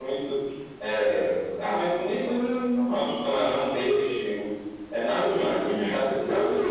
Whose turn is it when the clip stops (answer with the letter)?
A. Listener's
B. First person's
A